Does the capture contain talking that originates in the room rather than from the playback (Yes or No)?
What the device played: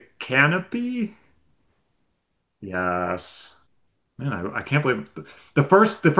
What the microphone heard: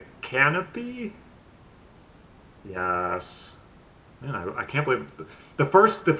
No